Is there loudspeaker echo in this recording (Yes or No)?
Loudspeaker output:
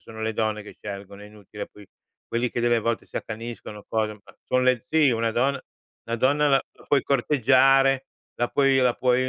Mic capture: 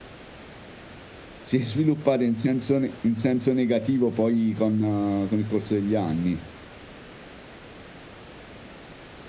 No